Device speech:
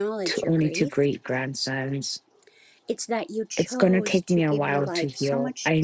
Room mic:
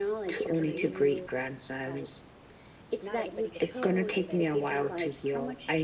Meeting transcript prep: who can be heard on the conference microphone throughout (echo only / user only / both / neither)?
both